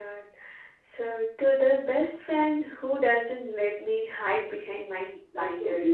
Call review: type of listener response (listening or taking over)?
taking over